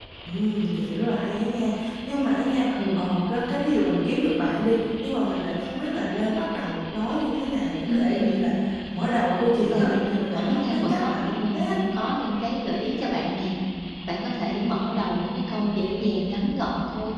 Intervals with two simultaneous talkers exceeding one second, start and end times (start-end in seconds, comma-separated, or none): 10.3-11.8